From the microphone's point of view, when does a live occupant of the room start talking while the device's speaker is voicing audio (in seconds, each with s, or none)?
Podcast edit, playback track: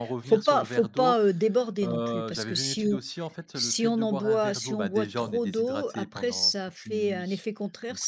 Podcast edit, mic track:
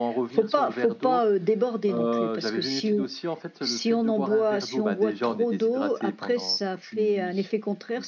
none